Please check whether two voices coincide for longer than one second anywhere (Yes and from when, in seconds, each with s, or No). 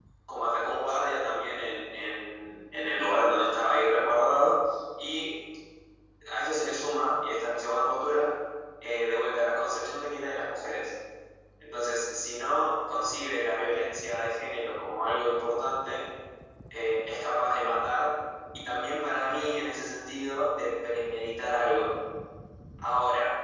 No